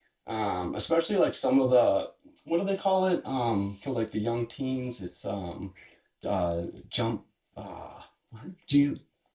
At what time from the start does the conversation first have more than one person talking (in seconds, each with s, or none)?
none